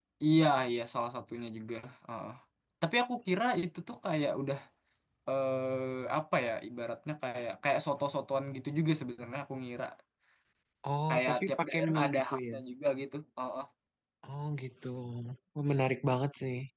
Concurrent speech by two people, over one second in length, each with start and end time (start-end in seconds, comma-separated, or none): 11.1-12.6